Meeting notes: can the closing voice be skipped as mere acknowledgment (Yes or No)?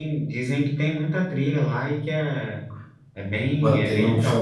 No